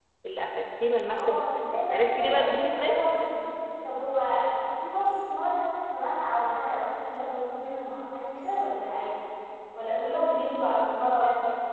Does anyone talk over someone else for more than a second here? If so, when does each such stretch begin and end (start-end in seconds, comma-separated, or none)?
1.1-3.0